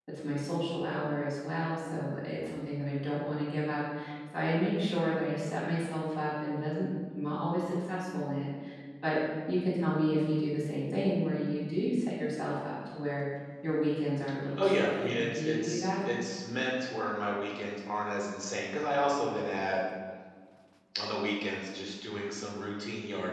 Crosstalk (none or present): present